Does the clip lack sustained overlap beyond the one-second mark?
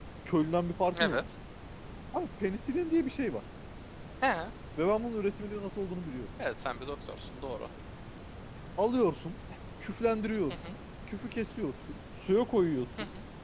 Yes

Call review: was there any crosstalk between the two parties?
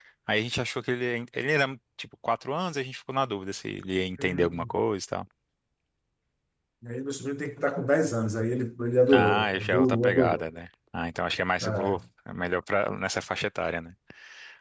Yes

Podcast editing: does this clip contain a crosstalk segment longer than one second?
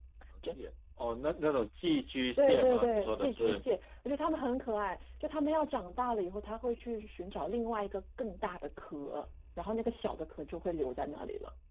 Yes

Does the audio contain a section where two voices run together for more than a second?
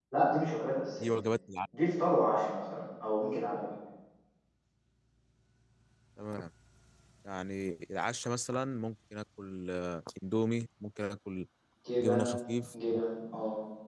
No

